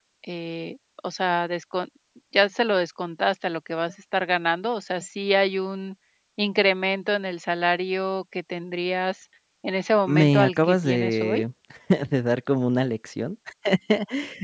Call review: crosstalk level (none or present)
present